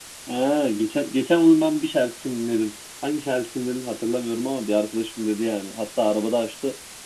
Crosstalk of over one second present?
No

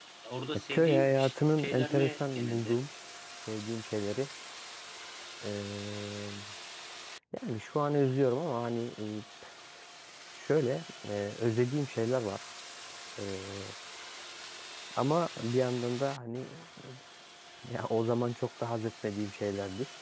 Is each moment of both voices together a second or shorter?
No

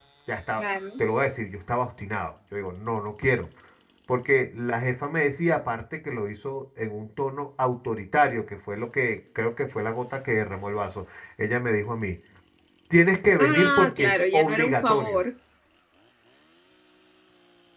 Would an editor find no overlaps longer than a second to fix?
No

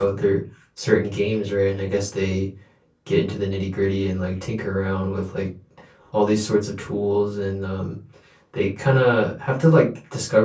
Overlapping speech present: No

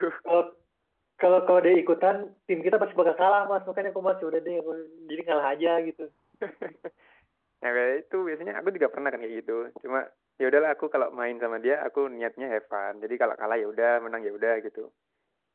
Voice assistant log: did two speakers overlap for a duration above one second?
No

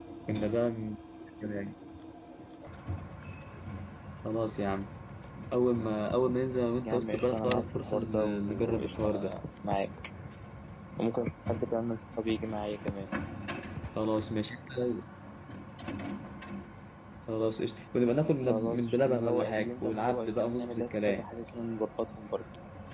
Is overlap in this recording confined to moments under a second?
No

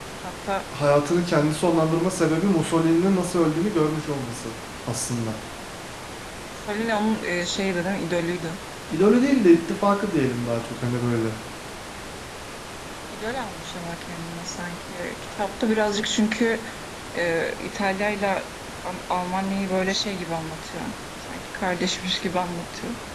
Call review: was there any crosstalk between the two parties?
No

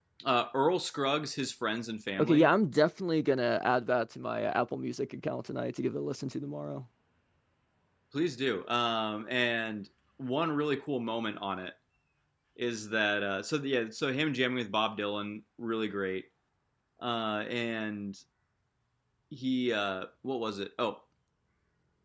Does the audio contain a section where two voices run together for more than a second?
No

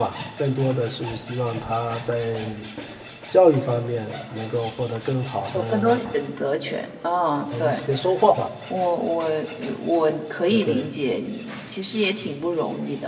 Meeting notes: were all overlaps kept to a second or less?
Yes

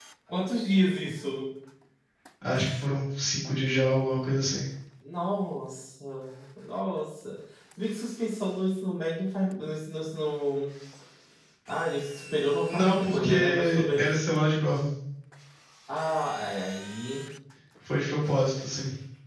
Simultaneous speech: Yes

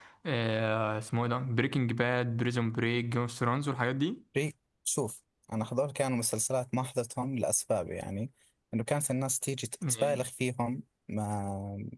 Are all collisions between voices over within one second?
Yes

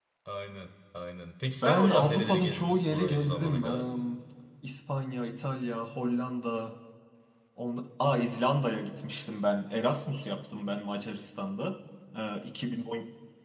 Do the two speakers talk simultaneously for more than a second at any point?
Yes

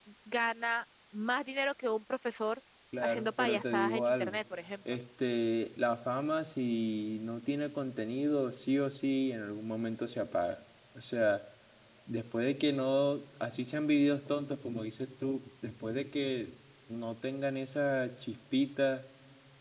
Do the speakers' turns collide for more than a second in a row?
Yes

